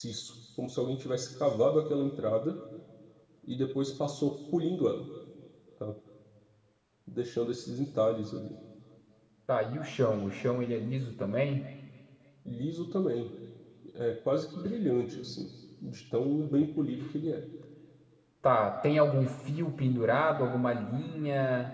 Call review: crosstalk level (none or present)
none